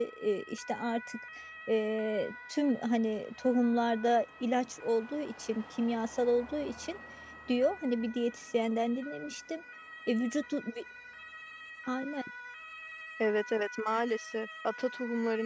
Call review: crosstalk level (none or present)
none